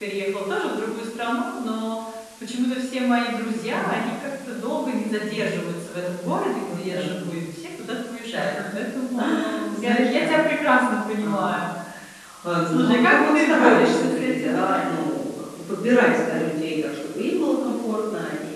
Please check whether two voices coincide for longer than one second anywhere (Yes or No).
Yes